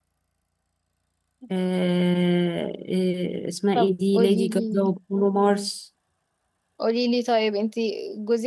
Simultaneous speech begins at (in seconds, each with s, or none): 3.8 s